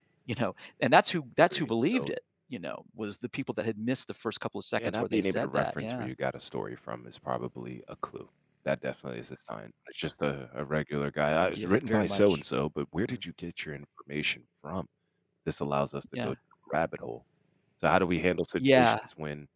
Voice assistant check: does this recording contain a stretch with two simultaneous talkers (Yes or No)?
Yes